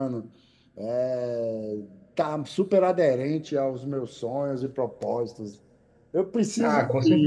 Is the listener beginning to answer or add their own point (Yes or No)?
Yes